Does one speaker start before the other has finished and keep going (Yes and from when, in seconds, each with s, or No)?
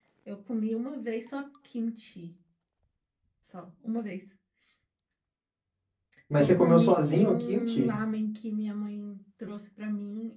Yes, from 6.4 s